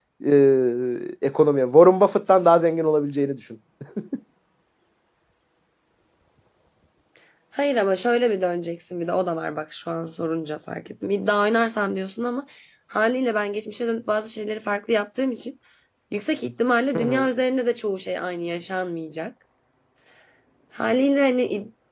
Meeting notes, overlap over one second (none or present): none